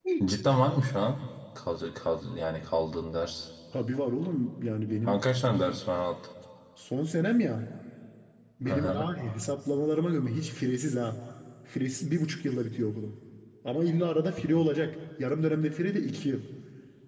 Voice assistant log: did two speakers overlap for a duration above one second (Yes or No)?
No